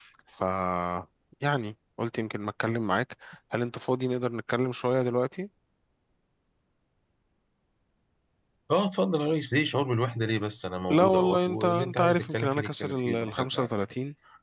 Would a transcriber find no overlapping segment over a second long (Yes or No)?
No